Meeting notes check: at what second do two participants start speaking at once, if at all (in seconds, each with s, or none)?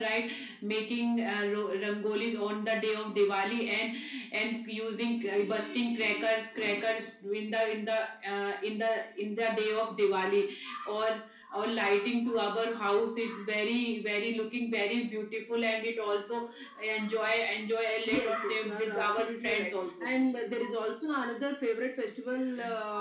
18.1 s